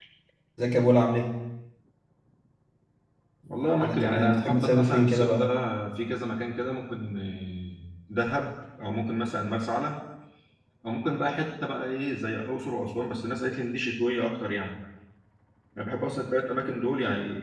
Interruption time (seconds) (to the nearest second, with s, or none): 4 s